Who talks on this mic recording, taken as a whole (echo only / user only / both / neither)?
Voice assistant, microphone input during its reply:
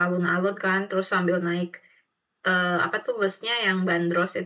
echo only